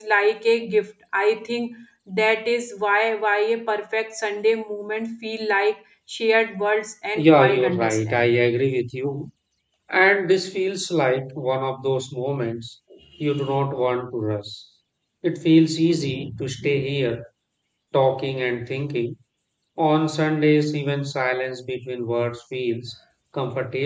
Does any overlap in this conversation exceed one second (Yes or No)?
Yes